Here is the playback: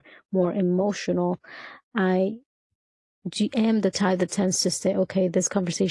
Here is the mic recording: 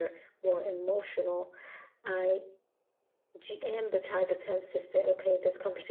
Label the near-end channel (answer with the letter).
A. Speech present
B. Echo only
B